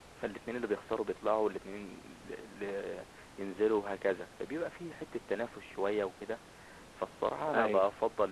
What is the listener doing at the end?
listening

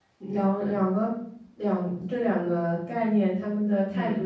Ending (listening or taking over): listening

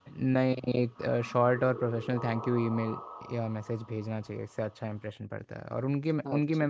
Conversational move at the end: listening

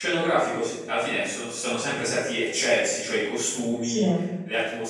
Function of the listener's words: listening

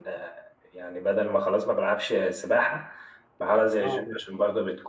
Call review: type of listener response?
listening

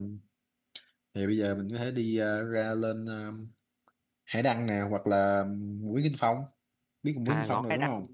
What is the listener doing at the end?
taking over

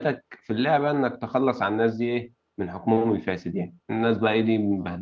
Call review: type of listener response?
listening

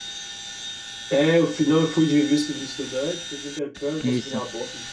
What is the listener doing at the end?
listening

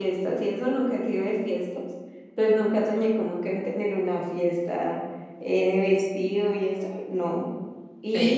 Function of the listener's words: listening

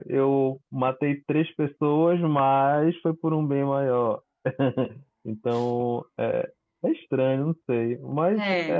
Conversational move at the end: listening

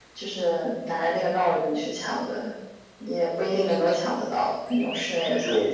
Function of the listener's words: taking over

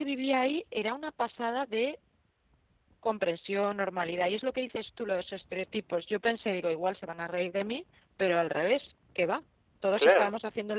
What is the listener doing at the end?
listening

